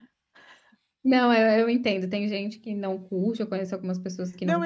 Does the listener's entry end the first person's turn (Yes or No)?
Yes